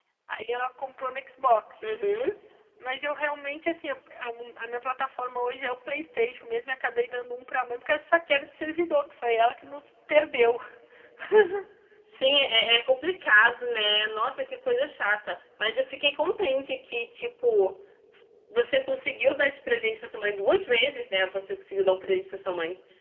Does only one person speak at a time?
Yes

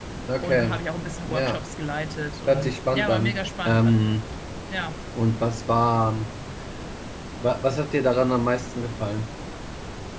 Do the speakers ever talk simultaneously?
Yes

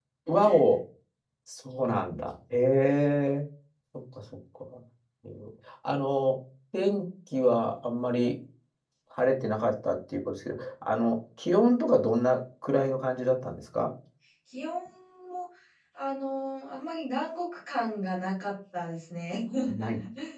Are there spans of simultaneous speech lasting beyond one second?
No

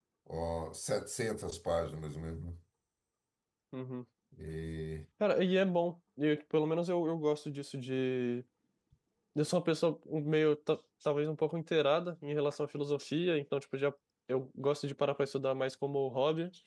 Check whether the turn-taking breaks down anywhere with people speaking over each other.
No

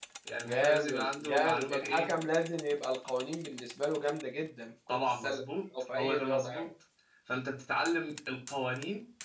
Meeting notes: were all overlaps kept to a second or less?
No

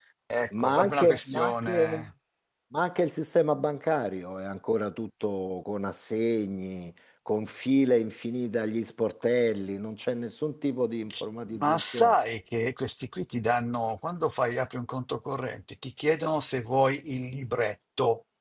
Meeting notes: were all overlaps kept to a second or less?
No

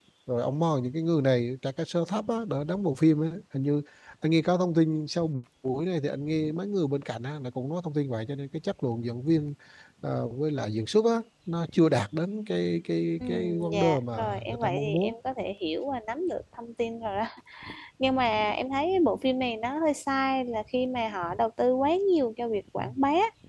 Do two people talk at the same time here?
Yes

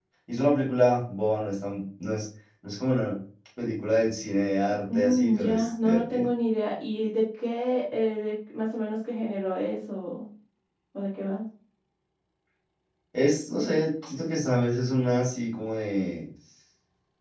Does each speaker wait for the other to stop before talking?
No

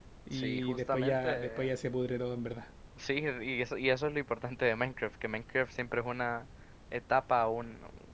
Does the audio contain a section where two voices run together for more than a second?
Yes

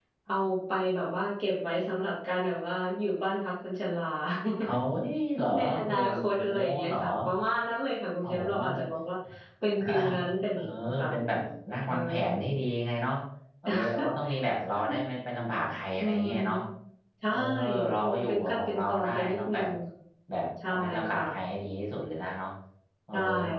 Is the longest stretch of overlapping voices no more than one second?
No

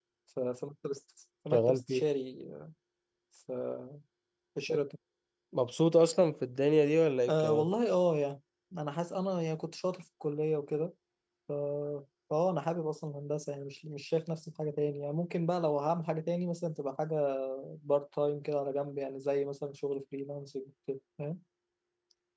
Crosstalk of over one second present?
No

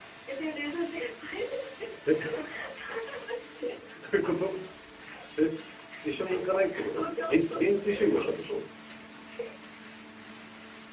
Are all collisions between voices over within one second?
No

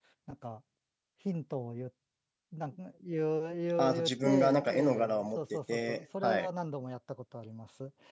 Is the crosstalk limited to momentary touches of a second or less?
No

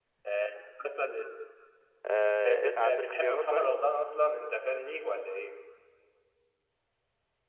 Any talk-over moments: Yes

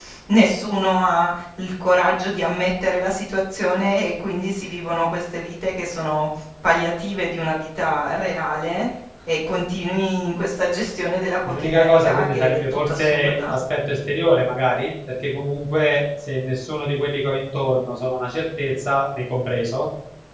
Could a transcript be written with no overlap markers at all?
No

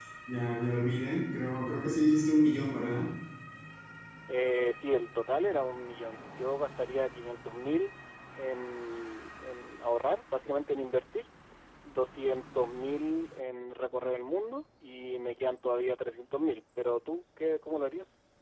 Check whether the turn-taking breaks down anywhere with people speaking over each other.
No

